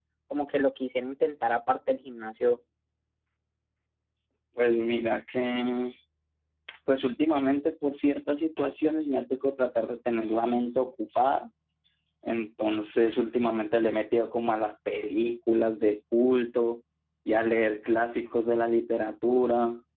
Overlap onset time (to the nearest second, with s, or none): none